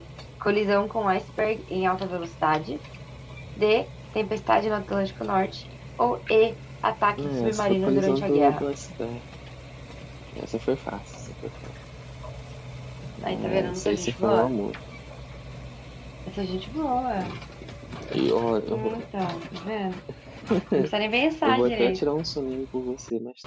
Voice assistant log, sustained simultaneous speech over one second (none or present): present